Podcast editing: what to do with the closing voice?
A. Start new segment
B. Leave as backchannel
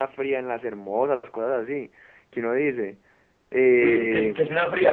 A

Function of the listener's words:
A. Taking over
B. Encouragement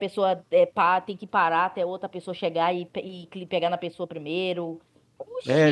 A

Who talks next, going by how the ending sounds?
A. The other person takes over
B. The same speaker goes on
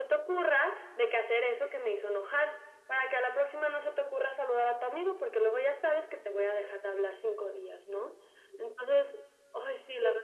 A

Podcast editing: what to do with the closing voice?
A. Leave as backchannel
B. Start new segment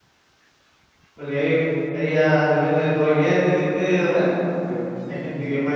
A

